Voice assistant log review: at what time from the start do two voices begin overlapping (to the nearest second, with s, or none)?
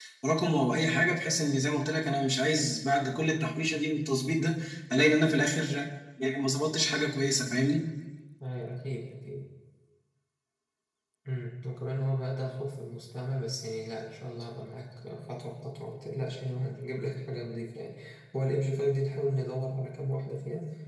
none